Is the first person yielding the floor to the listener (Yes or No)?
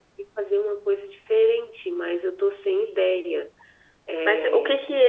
Yes